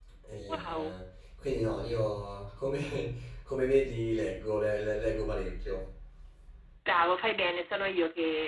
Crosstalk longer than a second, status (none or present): none